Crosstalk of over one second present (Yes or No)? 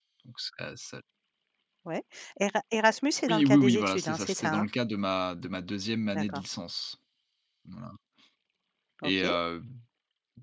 Yes